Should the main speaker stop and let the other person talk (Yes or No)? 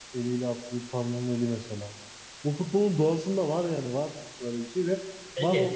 No